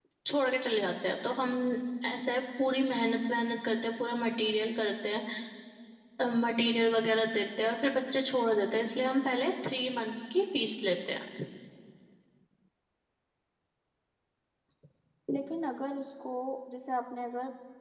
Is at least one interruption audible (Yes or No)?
No